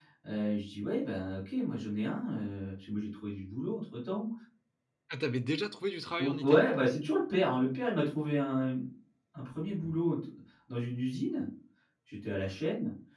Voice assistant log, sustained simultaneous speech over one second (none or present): none